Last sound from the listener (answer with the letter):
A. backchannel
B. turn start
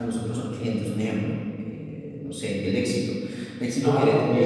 B